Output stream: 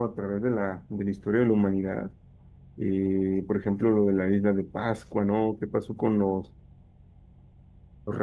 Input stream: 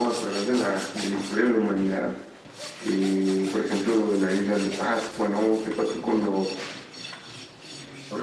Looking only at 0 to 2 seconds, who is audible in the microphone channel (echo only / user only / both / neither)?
echo only